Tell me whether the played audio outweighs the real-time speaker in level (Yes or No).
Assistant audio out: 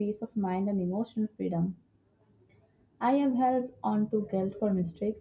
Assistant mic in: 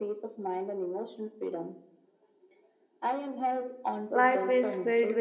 No